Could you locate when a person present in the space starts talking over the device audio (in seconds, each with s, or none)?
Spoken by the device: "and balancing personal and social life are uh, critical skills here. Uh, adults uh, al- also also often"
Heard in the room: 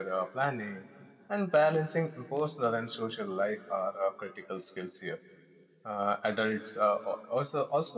none